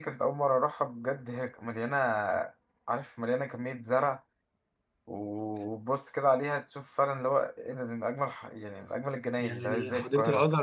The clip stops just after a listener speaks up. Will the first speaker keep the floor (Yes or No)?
No